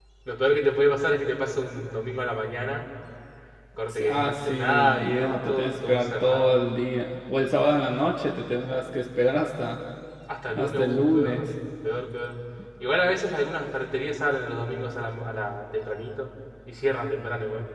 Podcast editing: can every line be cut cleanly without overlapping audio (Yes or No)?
No